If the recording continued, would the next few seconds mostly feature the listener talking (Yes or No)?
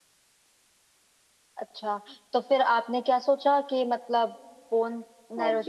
Yes